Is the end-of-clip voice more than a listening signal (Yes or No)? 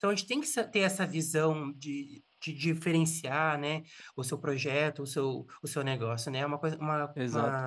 Yes